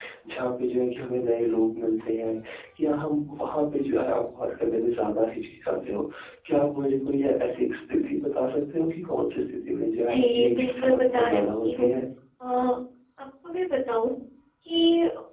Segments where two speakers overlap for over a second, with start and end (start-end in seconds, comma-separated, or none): 10.0-11.9